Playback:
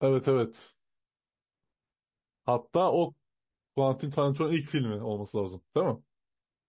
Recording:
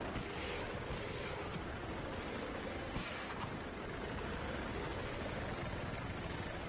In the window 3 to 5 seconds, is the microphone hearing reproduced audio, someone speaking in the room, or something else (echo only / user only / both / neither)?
neither